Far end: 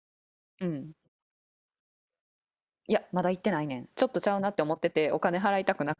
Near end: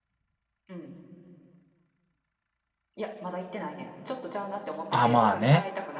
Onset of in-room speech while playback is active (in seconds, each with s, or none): 4.9 s